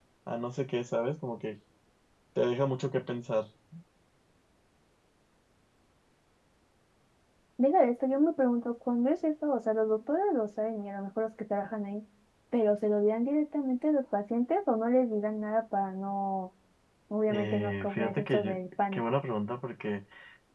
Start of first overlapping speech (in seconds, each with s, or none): 17.3 s